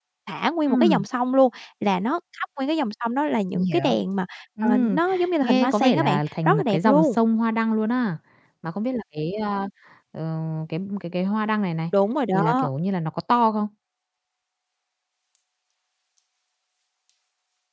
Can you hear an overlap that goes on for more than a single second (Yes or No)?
Yes